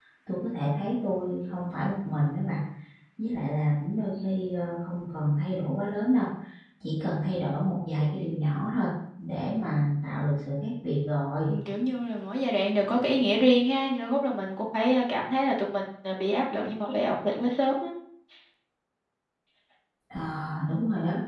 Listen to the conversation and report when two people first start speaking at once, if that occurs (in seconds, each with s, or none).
none